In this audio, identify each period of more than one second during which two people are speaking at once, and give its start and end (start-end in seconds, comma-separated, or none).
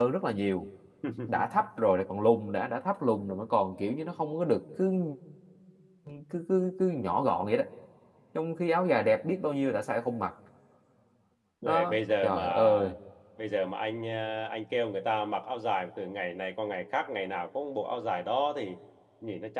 11.6-12.9